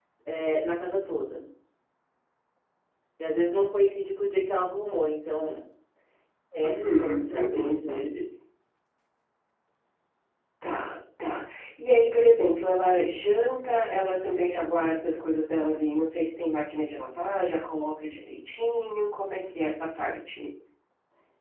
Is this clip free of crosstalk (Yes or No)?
No